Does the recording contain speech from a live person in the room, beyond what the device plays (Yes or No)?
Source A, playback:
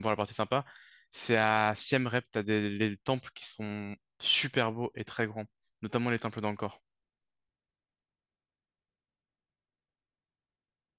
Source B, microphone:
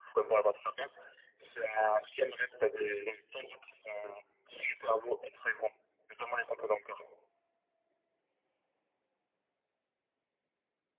No